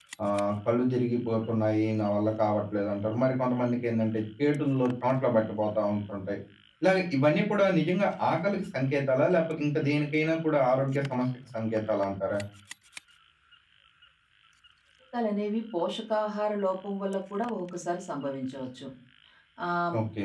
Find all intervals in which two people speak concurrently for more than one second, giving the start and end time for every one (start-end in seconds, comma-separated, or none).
none